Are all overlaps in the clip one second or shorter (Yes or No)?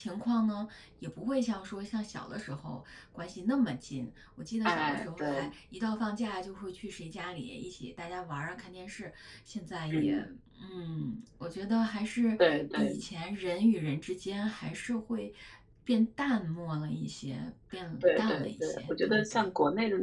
No